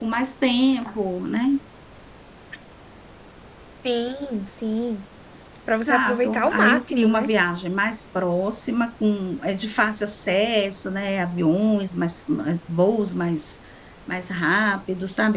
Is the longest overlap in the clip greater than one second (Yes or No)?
Yes